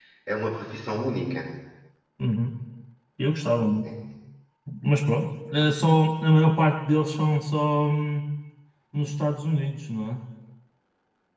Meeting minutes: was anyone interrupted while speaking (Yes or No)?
No